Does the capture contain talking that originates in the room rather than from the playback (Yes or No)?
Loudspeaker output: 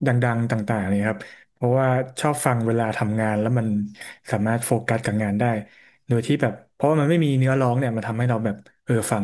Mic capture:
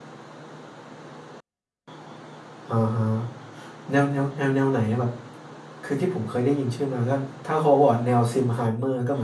Yes